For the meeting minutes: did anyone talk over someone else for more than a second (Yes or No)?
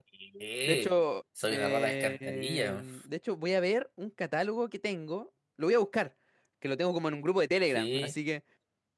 Yes